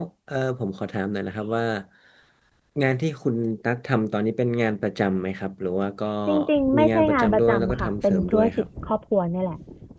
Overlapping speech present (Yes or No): Yes